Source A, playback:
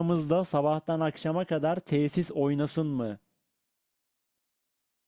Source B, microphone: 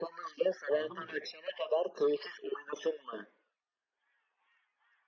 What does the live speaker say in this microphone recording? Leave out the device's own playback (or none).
Anladın mı?